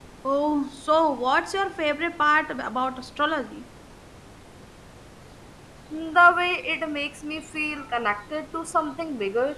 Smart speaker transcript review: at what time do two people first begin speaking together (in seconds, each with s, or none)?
none